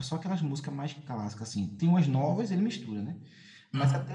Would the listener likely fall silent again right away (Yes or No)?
Yes